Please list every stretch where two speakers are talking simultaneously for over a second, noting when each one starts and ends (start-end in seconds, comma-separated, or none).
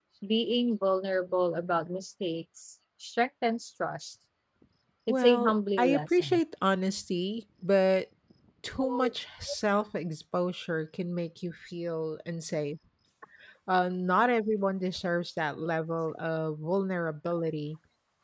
5.1-6.4